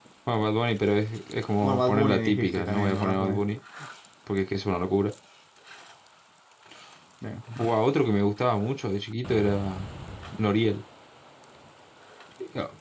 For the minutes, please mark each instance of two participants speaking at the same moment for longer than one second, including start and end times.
1.6-3.4

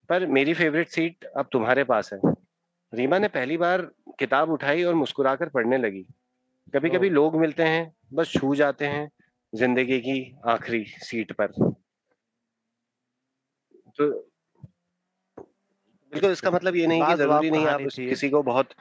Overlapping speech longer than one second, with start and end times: 17.0-18.2

